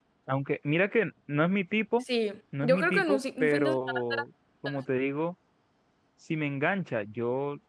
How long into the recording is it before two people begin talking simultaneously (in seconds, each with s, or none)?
2.6 s